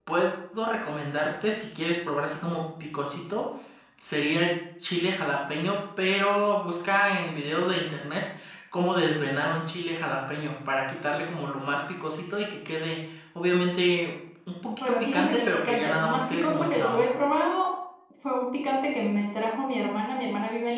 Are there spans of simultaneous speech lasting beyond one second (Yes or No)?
Yes